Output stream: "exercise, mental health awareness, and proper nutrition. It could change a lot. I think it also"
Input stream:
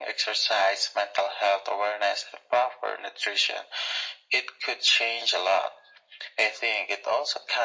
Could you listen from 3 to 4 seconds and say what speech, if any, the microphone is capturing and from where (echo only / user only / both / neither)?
echo only